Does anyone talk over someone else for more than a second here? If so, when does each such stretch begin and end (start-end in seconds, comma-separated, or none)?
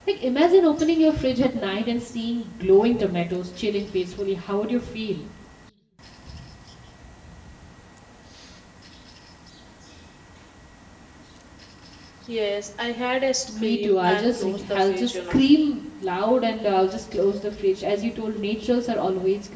13.5-15.4